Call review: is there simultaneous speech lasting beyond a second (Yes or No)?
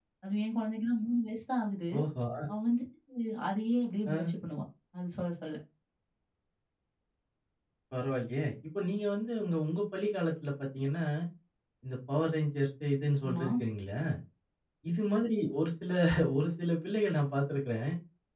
No